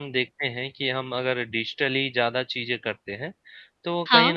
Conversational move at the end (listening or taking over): listening